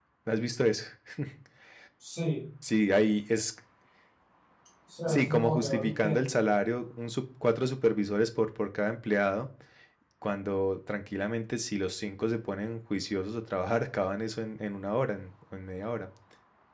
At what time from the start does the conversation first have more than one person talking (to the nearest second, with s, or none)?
5 s